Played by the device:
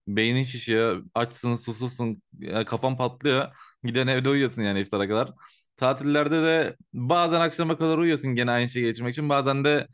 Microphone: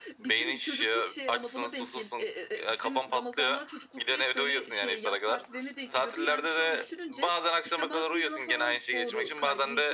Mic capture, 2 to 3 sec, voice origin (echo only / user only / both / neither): both